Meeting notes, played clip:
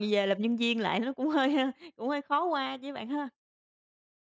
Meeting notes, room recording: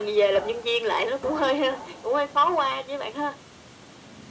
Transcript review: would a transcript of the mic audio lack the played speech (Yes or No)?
No